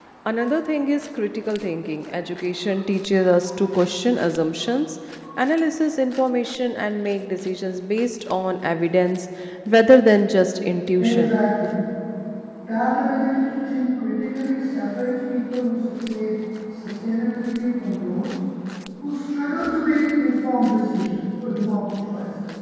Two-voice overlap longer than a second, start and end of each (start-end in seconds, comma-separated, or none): none